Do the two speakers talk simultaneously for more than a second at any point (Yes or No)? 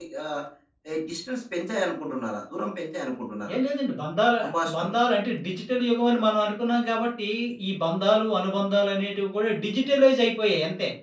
No